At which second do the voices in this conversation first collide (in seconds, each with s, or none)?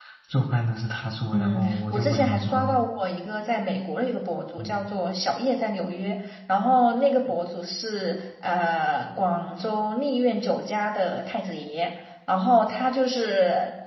1.3 s